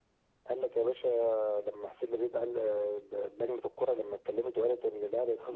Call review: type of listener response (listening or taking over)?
taking over